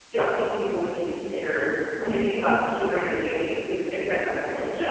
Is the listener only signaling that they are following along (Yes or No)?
No